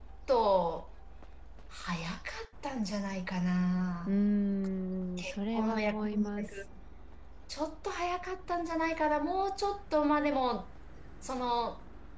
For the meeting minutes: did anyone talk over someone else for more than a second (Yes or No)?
Yes